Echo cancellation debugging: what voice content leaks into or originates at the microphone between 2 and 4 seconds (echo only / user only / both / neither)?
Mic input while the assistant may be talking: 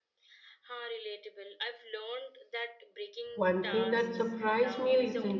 both